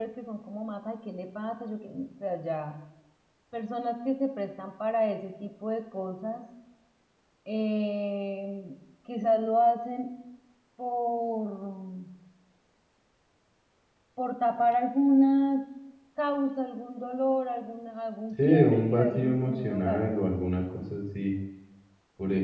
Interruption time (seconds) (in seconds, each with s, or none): 18.3 s